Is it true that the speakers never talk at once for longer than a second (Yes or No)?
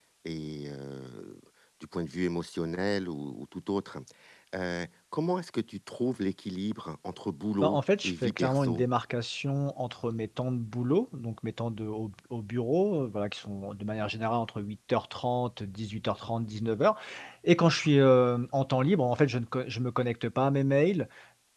No